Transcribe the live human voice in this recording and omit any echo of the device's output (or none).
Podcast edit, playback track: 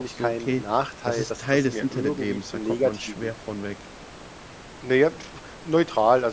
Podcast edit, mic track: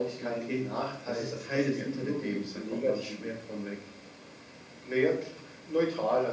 none